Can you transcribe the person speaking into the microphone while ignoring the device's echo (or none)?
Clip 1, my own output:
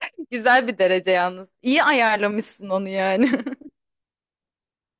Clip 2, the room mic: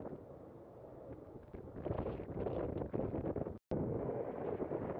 none